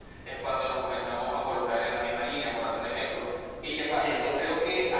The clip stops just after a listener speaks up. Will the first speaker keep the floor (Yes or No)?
Yes